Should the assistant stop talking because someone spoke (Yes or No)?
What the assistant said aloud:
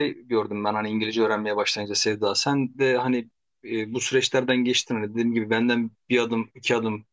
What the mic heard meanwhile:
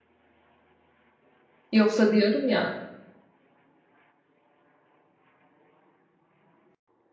Yes